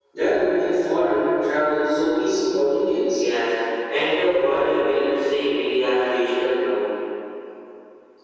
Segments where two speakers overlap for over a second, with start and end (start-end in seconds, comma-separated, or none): none